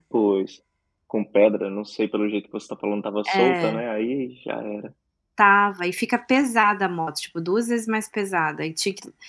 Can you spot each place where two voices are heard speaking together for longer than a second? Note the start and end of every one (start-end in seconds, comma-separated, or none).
none